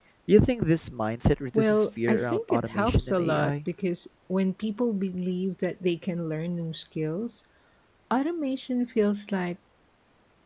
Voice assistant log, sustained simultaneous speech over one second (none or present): present